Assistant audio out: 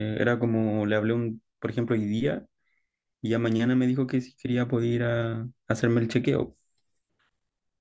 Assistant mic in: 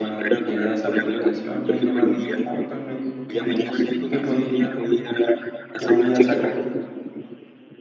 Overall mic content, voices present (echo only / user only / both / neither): both